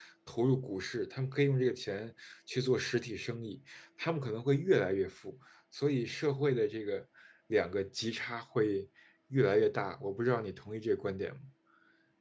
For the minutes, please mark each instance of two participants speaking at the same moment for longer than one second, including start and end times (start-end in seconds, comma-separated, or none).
none